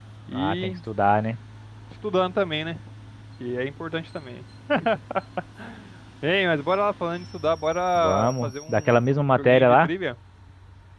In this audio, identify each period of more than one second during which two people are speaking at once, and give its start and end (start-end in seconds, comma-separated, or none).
8.0-9.9